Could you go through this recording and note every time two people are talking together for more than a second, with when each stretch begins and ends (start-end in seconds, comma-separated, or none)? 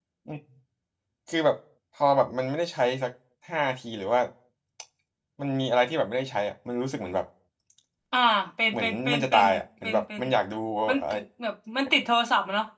8.7-10.2